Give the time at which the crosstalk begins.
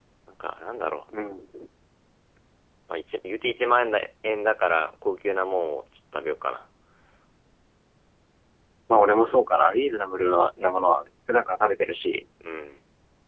none

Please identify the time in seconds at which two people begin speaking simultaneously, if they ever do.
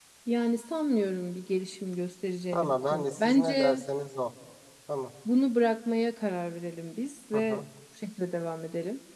2.5 s

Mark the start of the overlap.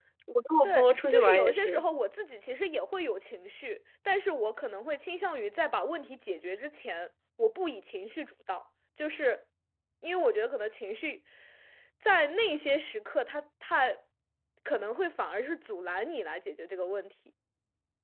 0.6 s

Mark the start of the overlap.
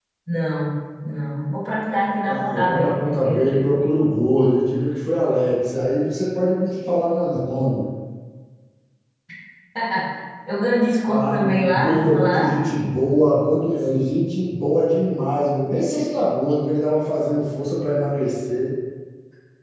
2.2 s

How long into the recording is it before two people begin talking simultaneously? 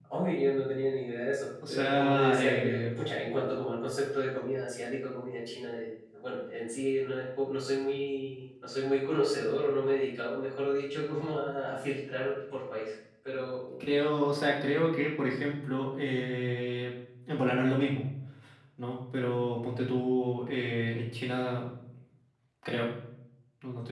1.6 s

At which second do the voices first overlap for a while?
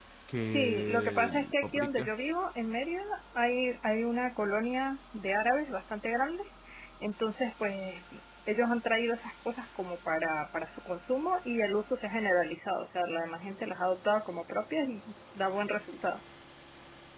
0.5 s

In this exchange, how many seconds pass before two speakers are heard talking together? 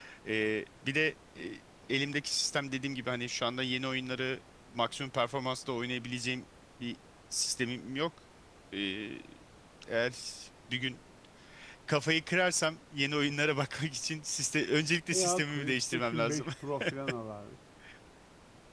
15.1 s

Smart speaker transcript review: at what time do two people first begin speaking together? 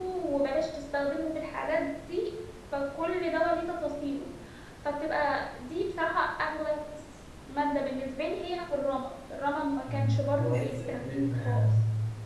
9.9 s

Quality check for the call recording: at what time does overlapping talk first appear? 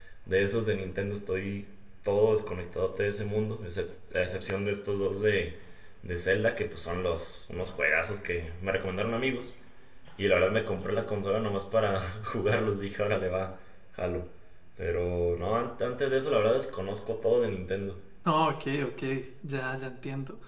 none

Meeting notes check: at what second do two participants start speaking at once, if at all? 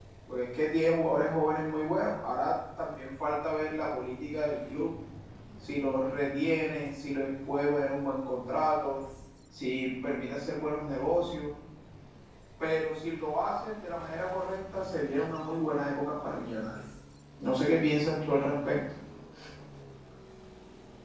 none

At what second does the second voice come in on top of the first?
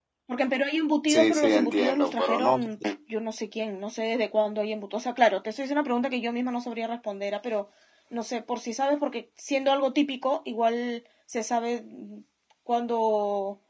1.1 s

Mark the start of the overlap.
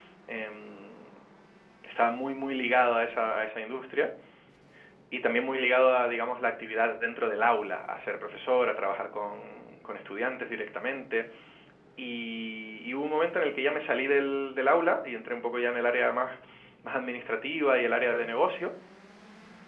none

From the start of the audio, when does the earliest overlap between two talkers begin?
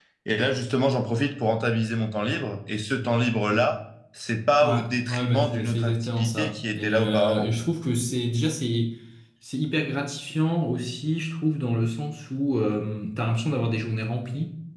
4.6 s

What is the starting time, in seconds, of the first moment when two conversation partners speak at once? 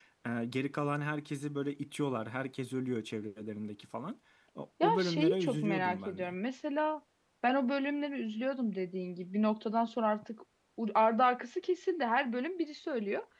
4.8 s

